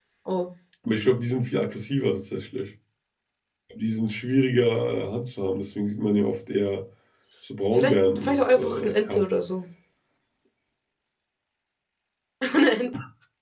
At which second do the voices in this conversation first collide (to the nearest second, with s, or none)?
8 s